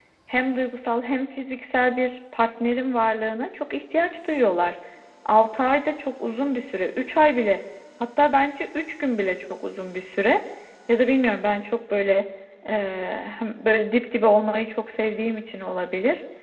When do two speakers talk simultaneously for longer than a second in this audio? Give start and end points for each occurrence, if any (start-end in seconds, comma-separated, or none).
none